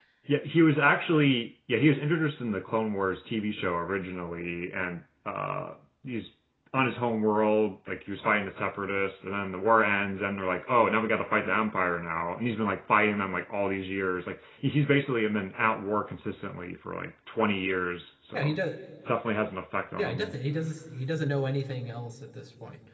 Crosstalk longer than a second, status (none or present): none